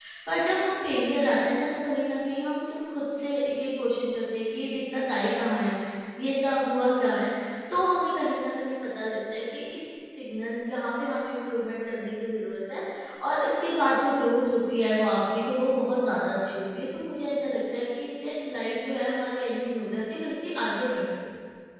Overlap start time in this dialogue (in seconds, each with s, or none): none